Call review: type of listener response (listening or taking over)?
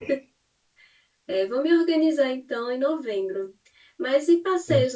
listening